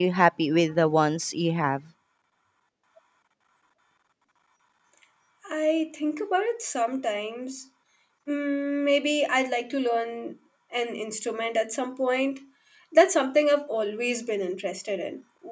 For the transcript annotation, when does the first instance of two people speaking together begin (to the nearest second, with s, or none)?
none